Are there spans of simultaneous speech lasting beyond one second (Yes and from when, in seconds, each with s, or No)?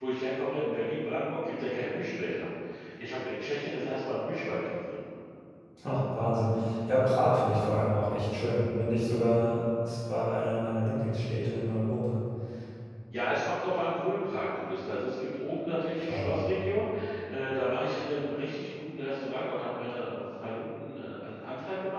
No